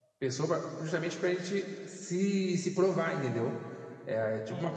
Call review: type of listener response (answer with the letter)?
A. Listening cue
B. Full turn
A